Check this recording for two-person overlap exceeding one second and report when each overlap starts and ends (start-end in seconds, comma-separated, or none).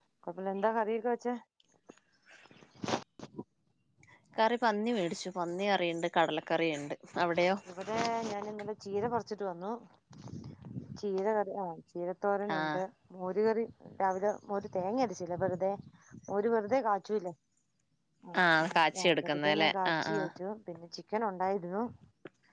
18.6-20.4